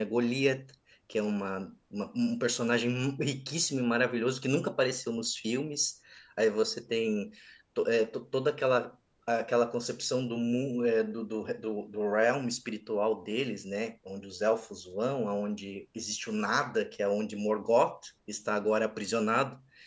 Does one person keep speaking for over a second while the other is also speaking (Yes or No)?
No